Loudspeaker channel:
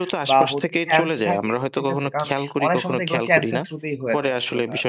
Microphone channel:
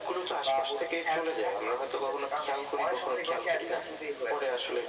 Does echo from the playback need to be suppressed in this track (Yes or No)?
Yes